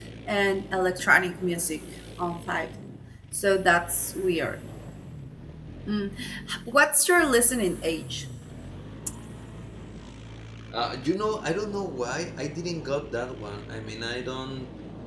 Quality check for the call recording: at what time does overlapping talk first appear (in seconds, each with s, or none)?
none